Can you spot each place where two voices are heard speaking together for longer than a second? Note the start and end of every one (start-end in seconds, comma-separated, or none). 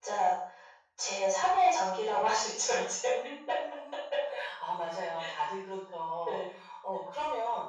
none